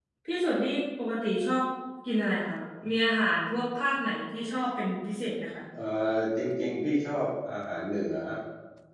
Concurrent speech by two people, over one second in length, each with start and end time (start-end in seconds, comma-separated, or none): none